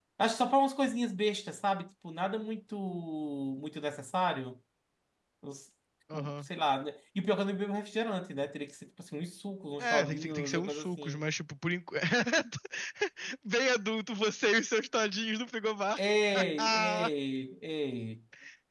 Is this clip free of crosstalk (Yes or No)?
No